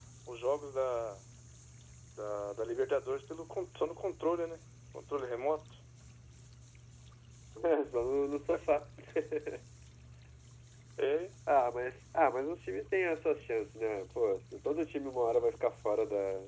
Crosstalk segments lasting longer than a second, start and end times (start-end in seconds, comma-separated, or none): none